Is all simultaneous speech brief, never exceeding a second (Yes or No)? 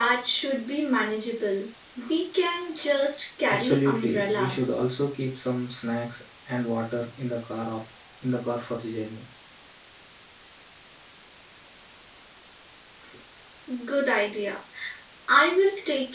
No